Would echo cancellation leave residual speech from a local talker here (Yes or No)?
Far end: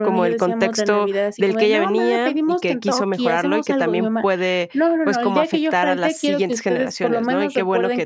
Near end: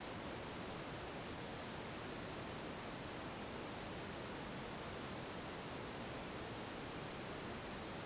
No